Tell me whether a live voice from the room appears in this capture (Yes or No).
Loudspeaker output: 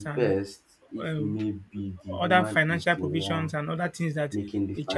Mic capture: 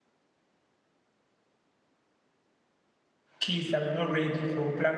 Yes